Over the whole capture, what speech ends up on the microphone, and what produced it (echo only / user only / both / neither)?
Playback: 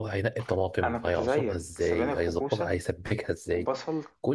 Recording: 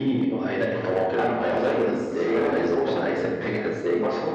echo only